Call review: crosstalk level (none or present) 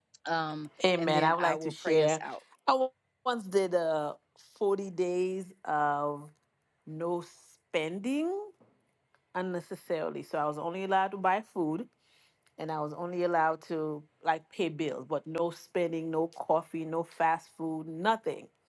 present